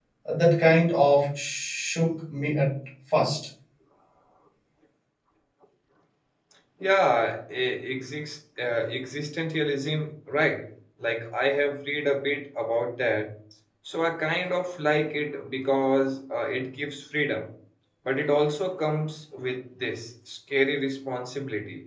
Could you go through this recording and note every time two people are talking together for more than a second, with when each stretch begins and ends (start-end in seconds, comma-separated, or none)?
none